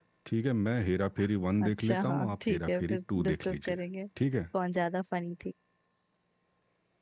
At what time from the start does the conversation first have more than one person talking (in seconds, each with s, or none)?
1.6 s